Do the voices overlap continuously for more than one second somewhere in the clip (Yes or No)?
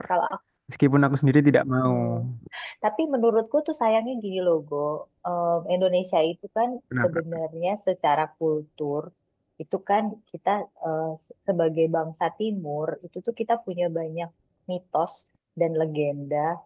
No